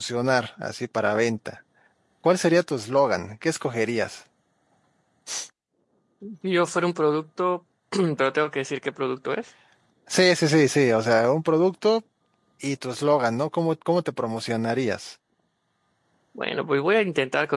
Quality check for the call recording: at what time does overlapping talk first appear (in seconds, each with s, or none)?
none